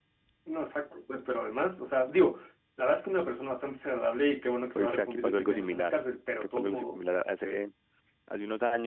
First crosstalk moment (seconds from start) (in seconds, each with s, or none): 4.8 s